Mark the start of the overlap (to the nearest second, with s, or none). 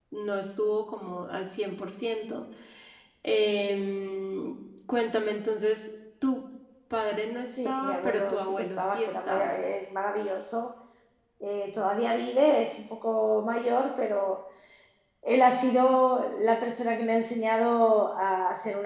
8 s